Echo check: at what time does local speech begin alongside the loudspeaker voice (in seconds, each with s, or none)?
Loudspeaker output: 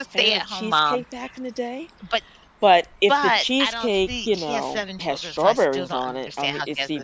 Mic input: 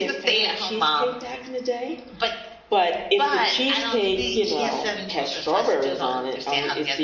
none